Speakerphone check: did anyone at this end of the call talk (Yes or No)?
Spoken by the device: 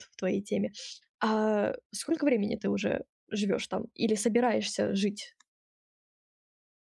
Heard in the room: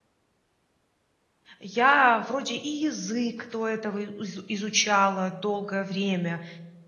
Yes